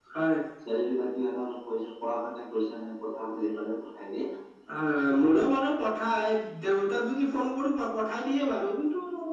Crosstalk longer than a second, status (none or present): none